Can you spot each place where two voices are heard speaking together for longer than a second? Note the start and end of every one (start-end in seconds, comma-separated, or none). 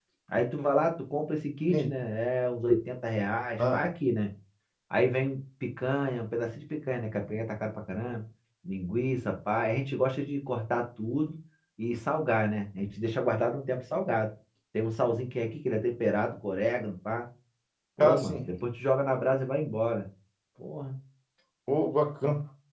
none